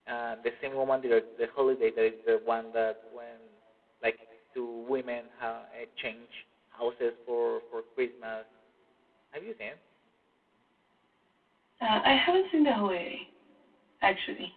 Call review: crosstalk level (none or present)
none